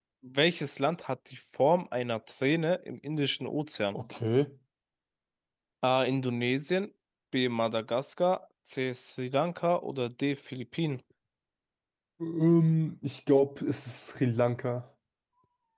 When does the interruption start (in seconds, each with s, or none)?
none